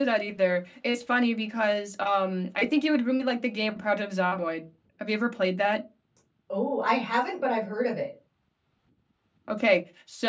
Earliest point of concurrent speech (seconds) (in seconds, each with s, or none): none